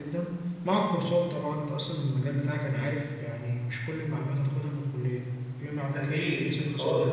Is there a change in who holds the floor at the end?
Yes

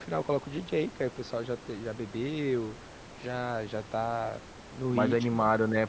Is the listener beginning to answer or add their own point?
Yes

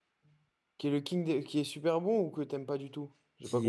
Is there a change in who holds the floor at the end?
Yes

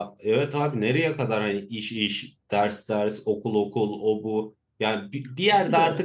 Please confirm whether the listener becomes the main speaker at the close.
No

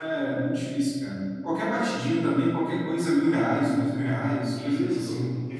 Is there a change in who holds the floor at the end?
Yes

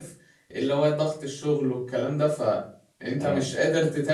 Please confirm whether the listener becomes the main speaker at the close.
No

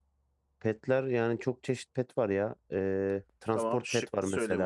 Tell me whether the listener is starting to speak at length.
Yes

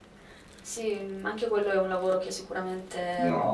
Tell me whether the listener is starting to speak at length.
Yes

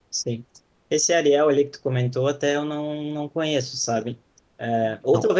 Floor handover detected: No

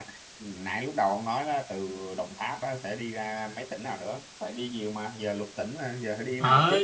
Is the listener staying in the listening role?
No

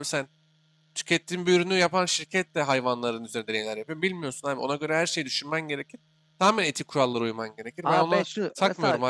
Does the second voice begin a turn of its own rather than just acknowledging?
Yes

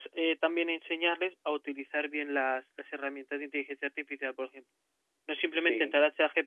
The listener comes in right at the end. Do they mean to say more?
No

